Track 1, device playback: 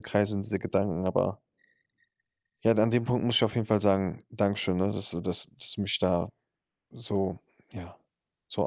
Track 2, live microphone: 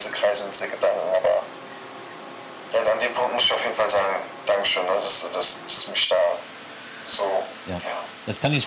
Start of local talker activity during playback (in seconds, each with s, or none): 7.6 s